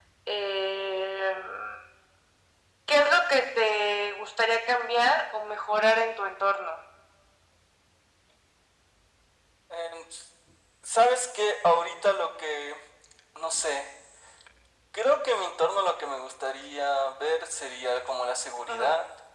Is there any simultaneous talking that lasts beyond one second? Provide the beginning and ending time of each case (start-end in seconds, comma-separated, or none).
none